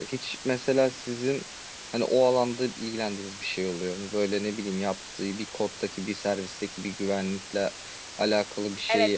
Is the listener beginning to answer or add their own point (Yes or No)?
Yes